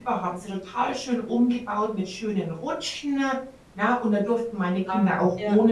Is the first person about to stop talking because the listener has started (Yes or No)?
No